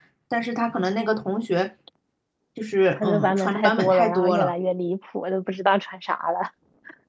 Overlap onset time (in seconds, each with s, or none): 2.9 s